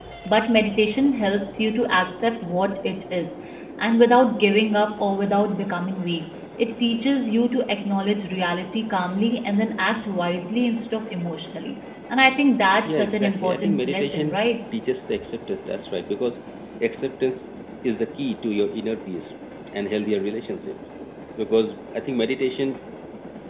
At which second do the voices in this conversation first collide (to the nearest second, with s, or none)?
13 s